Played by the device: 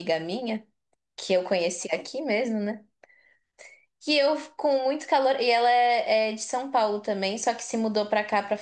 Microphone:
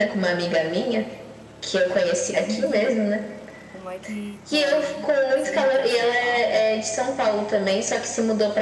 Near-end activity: present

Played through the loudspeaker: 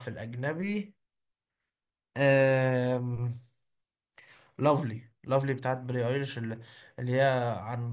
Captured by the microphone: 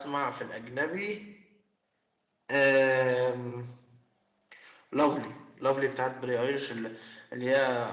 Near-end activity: none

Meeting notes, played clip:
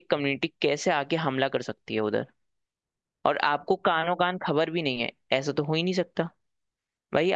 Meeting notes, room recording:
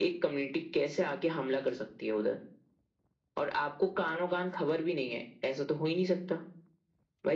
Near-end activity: none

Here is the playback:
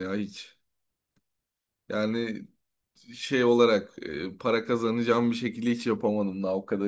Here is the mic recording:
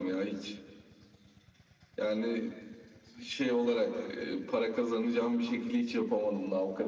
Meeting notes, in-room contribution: none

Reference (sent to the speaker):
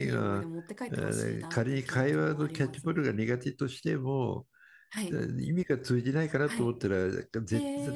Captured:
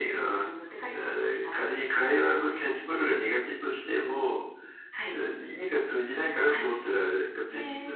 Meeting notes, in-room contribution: none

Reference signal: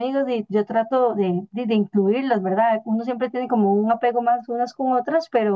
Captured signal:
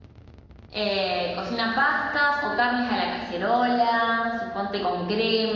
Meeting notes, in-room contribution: present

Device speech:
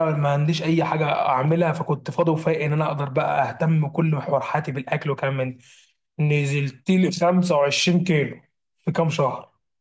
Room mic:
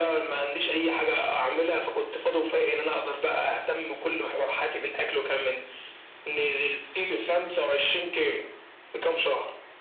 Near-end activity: none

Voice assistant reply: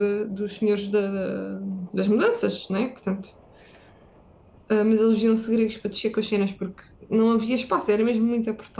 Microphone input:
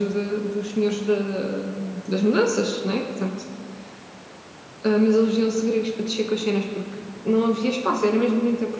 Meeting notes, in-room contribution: none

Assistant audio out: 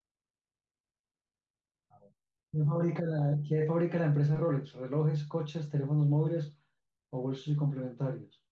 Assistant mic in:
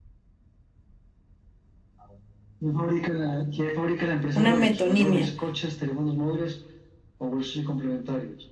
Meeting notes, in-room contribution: present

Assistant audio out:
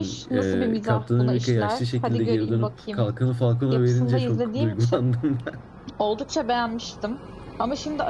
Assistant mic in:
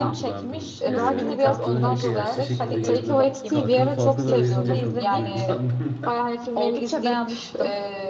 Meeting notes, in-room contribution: present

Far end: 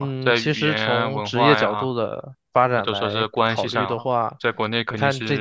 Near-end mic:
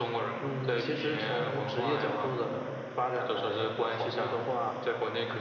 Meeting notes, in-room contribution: none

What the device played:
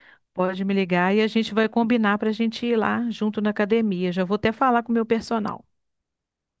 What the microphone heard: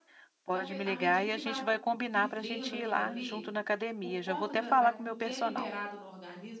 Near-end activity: present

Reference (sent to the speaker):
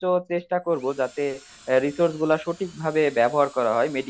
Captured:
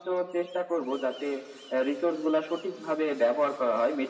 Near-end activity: none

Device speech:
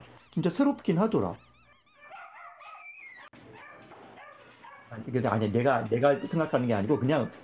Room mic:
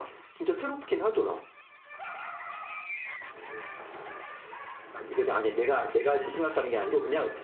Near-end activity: none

